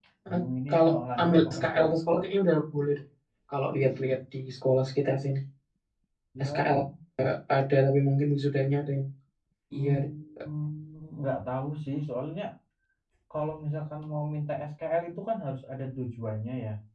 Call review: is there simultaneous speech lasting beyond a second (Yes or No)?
Yes